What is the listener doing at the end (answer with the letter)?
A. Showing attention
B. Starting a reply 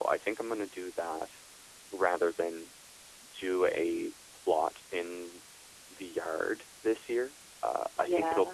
A